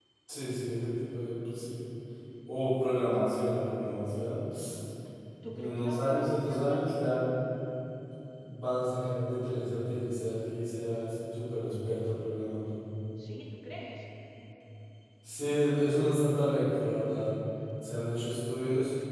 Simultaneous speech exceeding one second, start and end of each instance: 5.5-7.0

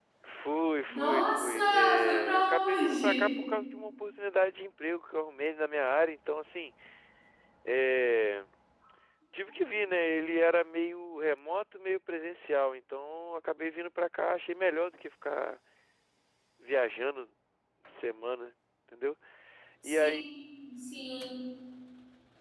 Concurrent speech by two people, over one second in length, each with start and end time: 0.9-3.3

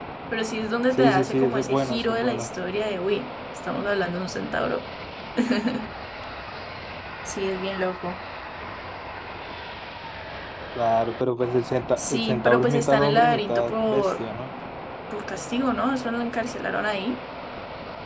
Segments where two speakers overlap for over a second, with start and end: 1.0-2.5, 12.0-14.2

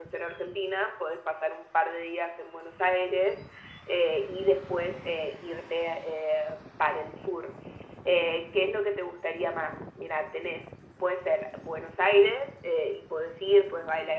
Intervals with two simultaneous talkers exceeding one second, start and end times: none

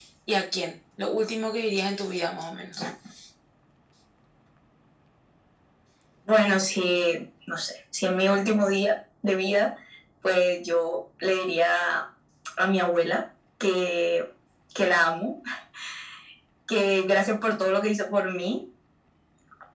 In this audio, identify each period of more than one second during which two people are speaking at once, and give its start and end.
none

